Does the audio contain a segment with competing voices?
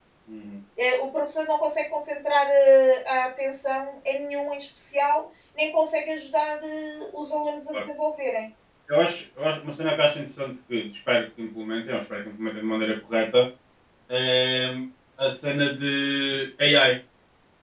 No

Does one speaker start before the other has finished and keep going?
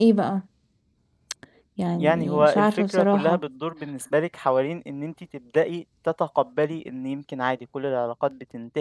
Yes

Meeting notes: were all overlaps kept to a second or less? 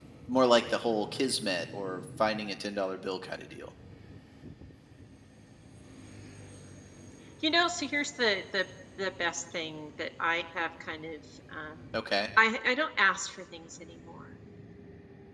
Yes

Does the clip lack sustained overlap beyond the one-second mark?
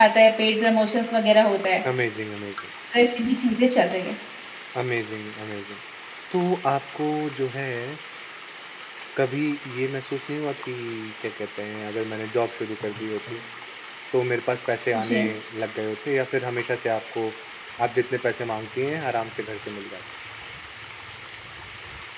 Yes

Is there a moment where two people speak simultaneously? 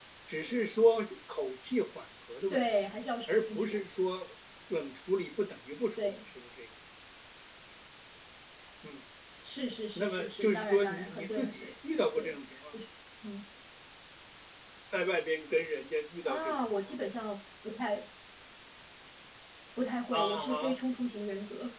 Yes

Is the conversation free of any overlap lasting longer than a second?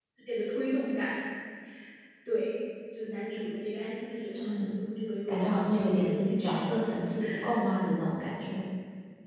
No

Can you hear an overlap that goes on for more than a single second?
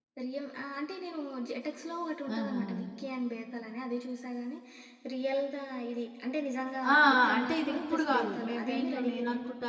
Yes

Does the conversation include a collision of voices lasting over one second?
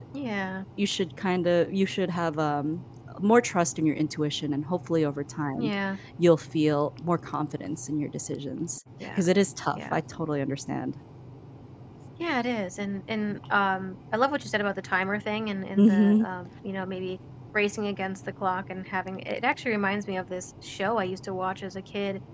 No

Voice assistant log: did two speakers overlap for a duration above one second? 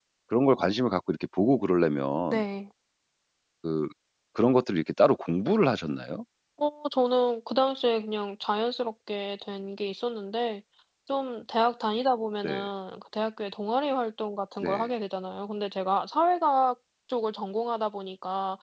No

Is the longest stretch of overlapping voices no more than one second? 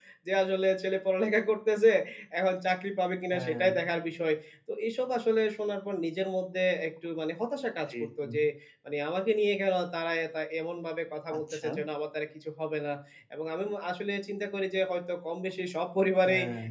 Yes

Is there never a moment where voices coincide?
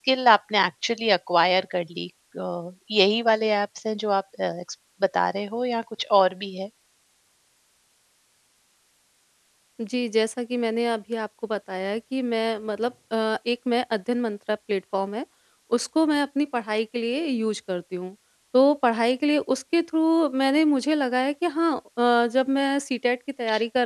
Yes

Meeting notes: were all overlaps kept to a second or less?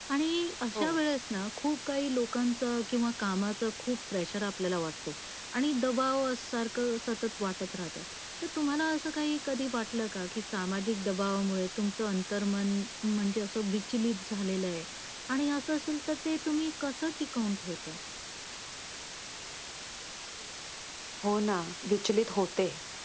Yes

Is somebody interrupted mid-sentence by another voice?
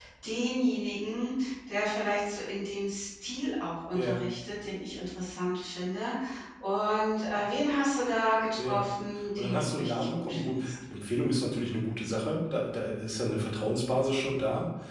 Yes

